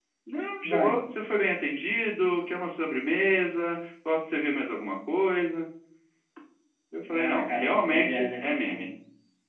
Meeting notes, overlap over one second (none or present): present